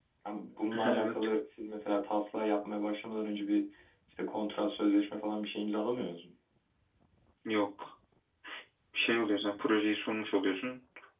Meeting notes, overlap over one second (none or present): none